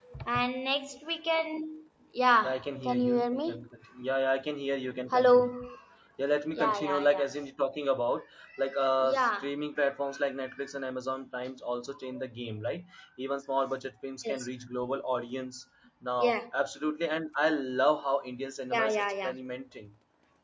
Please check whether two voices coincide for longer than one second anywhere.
Yes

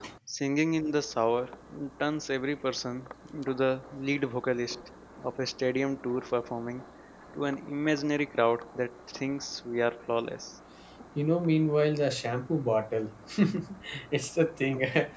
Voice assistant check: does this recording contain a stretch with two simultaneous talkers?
No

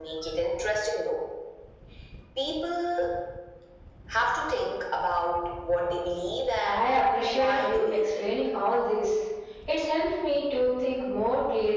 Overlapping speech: Yes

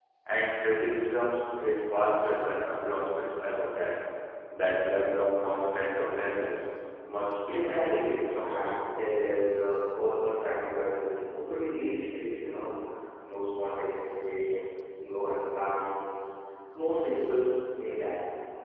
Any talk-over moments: Yes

